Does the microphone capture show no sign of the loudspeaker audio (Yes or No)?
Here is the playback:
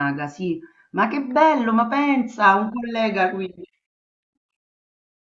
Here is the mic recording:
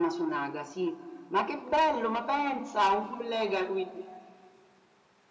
No